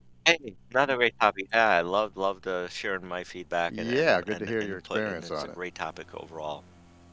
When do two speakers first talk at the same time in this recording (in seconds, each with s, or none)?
3.7 s